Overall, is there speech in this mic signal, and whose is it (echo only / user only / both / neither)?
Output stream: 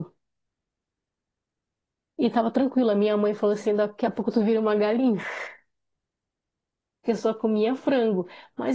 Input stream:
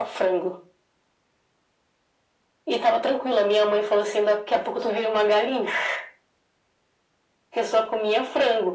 echo only